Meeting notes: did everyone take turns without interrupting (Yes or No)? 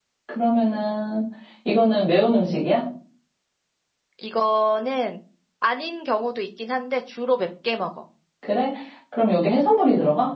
Yes